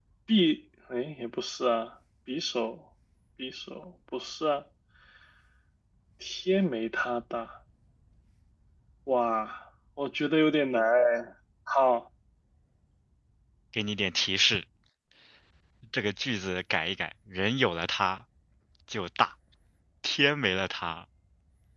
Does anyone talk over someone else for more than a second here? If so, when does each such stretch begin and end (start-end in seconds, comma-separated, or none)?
none